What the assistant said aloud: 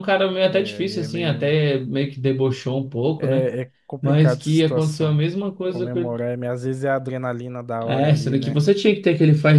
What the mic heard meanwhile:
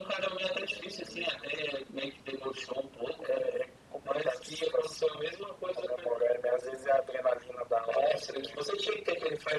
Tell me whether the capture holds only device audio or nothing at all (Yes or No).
Yes